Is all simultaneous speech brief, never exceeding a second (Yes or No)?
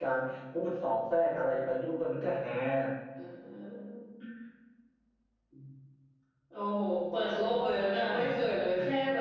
Yes